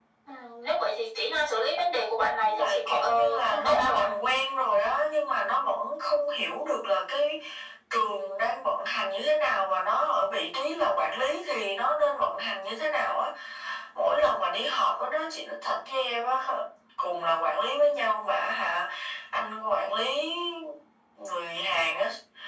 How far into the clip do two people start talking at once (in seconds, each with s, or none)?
2.4 s